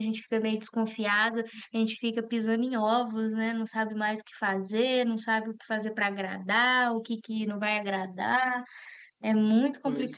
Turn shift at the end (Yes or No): No